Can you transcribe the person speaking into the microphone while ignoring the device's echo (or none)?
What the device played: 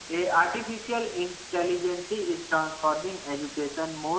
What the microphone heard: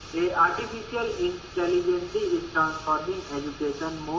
none